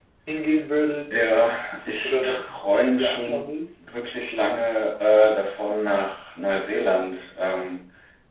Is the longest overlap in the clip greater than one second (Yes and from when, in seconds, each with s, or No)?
Yes, from 2.0 s